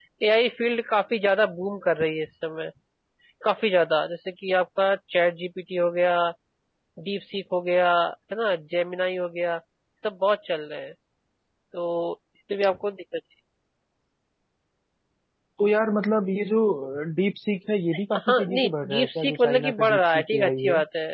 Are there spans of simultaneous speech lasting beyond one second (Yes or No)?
Yes